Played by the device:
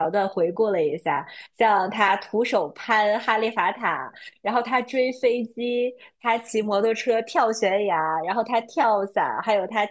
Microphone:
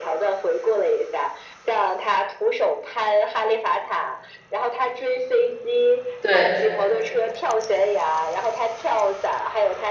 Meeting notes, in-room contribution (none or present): present